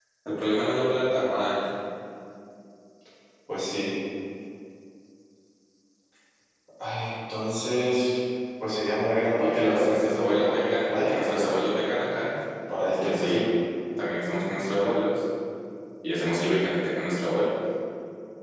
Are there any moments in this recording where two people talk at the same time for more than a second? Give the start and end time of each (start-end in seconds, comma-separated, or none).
9.4-11.5